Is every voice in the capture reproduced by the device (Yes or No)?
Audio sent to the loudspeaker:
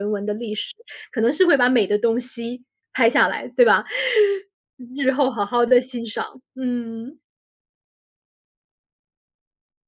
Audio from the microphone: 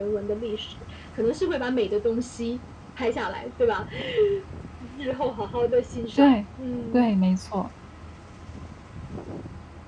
No